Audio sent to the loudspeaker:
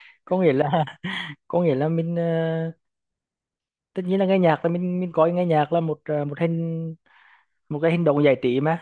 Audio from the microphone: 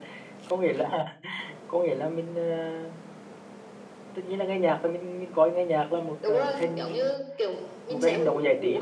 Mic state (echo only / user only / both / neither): both